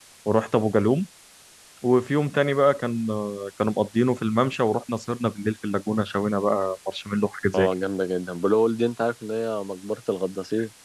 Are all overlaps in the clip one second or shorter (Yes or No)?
Yes